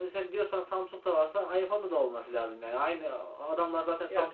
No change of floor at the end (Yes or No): Yes